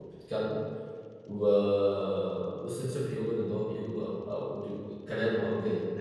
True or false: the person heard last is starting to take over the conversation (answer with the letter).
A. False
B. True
B